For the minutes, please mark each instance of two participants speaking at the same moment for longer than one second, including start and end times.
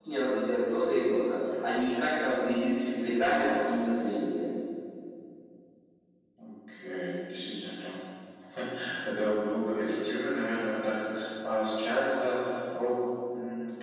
none

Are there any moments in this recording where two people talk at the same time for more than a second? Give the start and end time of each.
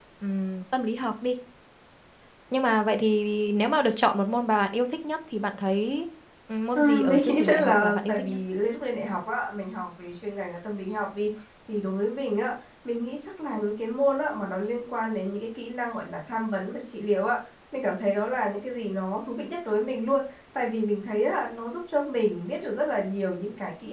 6.8-8.4

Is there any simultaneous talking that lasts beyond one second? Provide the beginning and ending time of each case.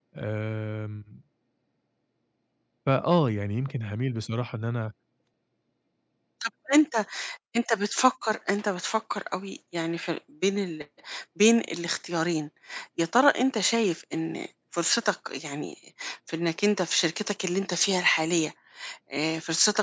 none

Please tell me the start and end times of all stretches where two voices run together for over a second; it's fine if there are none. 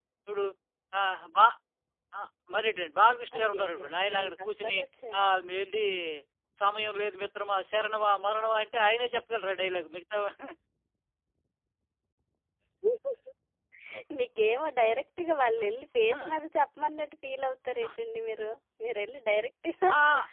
3.4-4.8

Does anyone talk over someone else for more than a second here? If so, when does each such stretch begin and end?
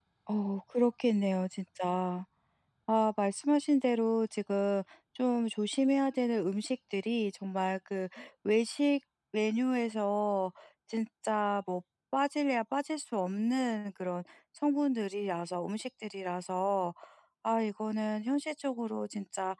none

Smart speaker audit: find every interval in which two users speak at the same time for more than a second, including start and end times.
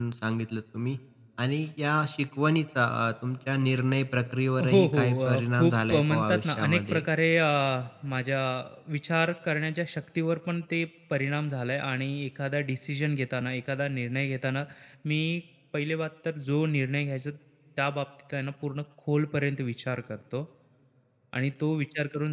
4.7-7.0

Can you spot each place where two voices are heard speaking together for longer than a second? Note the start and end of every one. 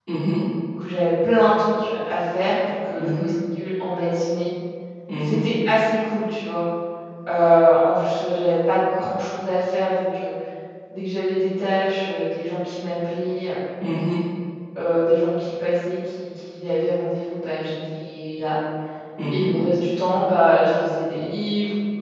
none

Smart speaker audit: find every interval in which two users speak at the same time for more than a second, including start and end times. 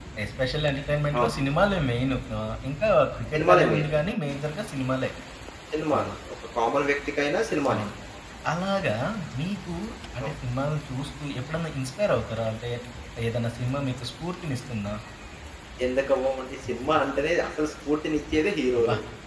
none

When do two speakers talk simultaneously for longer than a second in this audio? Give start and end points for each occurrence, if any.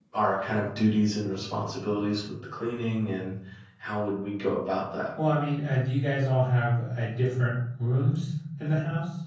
none

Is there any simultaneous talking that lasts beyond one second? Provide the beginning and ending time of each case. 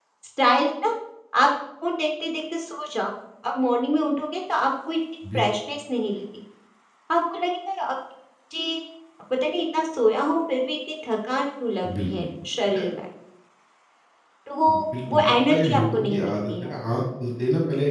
15.1-16.7

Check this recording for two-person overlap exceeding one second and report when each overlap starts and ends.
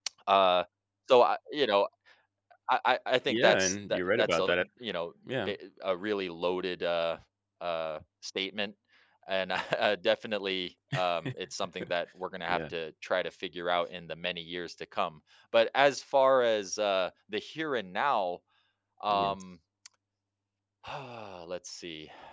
3.3-4.5

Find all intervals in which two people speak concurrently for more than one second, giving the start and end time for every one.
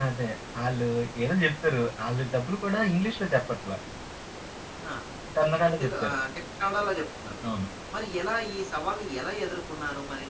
none

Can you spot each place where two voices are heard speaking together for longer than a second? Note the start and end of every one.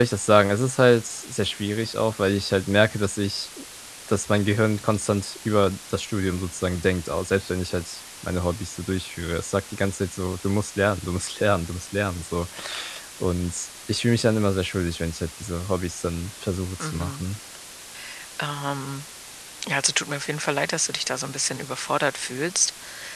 none

